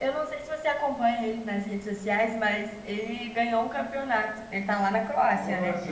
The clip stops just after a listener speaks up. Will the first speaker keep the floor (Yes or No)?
No